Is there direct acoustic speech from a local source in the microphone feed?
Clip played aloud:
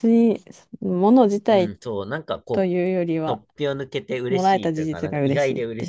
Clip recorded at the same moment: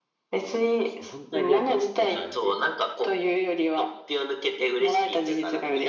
Yes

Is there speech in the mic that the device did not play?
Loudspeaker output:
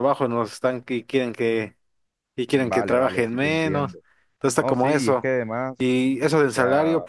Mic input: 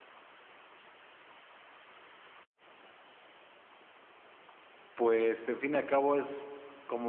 Yes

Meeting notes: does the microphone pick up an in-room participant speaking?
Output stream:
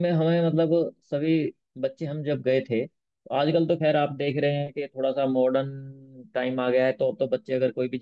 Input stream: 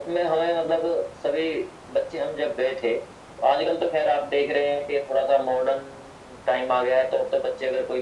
No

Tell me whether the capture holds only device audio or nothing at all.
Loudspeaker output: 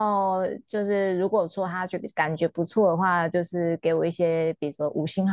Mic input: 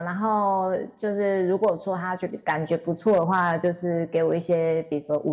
Yes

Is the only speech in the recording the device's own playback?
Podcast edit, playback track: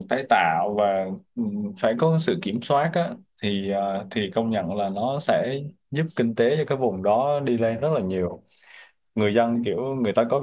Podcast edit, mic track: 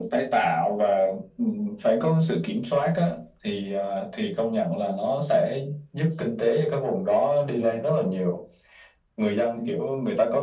Yes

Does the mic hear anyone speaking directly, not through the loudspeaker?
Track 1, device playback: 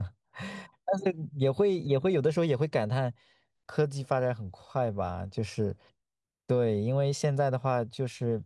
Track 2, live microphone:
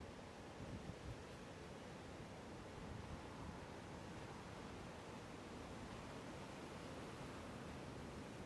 No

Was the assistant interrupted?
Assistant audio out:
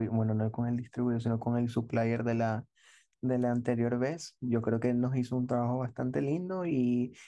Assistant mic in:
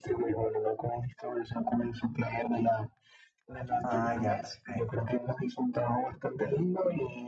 Yes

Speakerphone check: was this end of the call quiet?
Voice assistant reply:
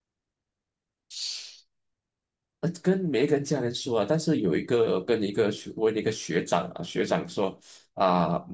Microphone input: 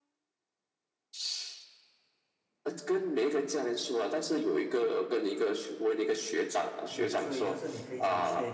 No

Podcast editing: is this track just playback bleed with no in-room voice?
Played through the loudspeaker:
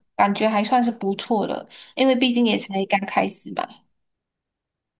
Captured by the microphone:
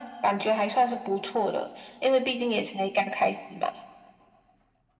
Yes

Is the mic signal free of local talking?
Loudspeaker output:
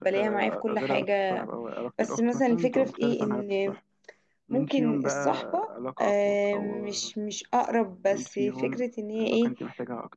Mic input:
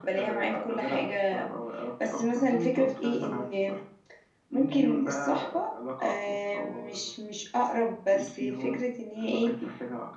Yes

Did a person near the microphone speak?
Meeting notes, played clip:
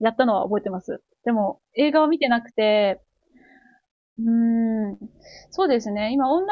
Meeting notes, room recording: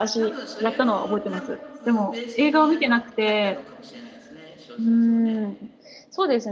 Yes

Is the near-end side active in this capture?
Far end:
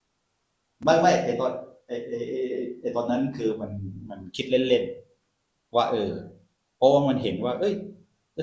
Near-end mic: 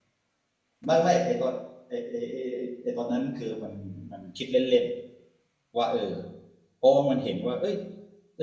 No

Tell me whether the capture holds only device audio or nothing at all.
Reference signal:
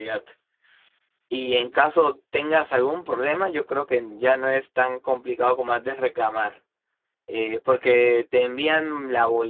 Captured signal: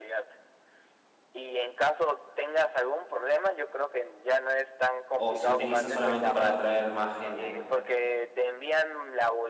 No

